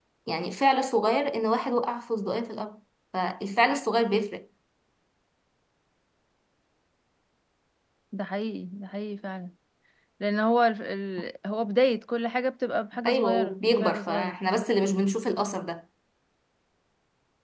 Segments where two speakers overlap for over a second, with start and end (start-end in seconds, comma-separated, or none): 13.0-14.3